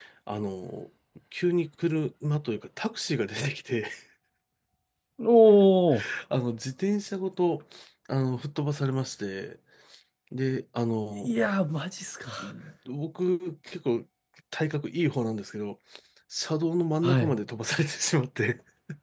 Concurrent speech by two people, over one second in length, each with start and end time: none

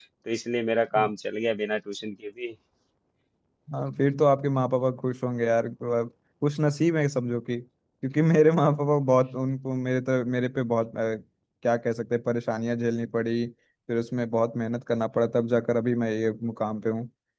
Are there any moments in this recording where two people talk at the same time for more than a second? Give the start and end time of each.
none

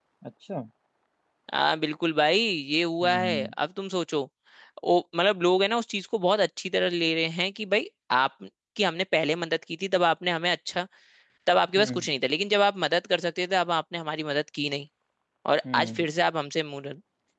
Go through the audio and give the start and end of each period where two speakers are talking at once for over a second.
none

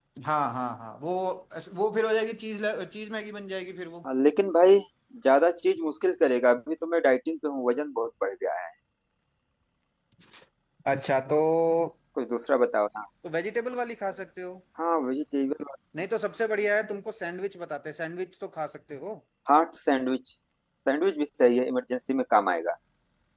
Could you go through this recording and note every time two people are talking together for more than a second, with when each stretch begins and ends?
none

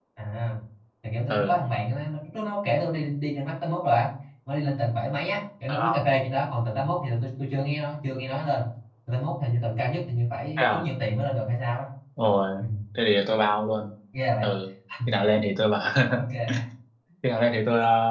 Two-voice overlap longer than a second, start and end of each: none

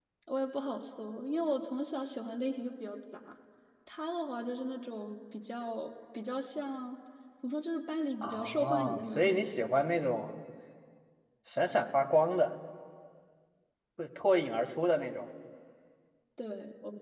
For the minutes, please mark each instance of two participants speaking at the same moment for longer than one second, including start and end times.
8.2-9.7

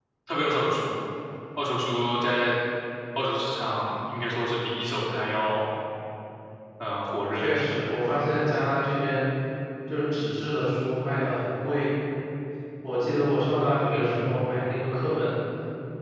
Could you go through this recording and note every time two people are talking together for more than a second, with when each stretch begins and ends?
none

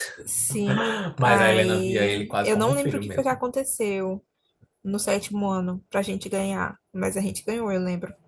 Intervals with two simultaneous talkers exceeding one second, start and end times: 1.2-3.4

